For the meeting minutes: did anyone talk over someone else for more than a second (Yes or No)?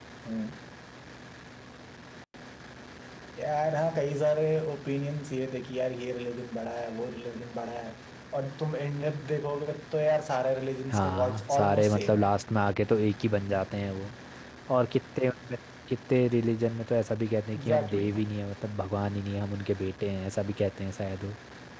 Yes